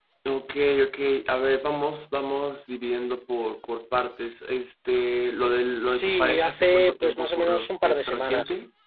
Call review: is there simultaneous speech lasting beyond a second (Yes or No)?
Yes